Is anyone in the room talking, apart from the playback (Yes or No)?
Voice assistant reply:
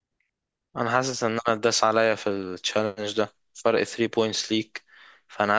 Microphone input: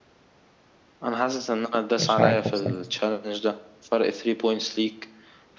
Yes